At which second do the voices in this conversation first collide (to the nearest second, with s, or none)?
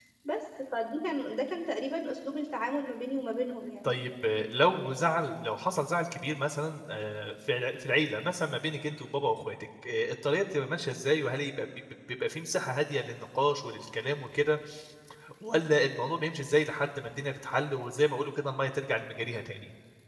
none